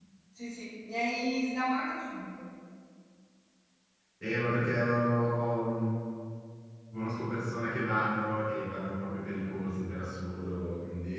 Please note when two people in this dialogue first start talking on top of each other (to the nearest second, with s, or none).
none